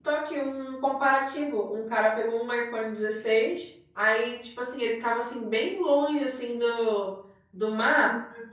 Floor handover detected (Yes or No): No